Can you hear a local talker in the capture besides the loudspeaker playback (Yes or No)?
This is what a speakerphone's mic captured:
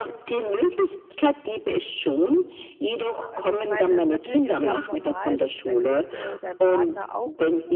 Yes